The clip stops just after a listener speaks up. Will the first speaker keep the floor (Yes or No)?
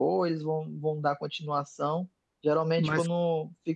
Yes